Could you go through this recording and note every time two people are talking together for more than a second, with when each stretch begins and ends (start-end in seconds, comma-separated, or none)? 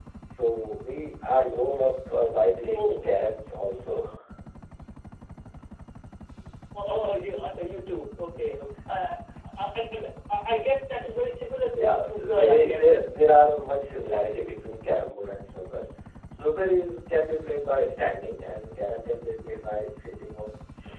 11.7-12.9